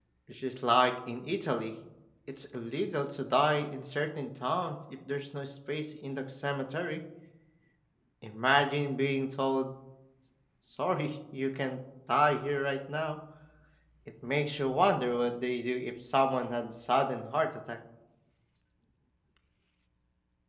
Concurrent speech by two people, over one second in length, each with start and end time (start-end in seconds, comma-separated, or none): none